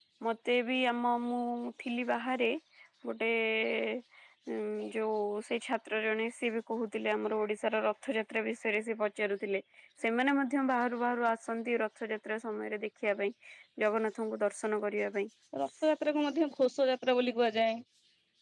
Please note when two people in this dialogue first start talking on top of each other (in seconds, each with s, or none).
none